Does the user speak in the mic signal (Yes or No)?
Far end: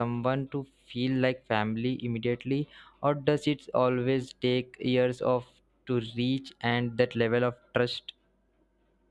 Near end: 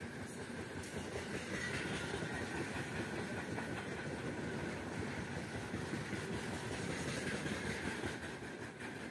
No